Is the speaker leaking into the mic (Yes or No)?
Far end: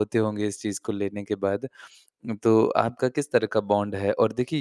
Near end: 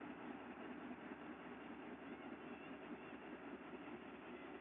No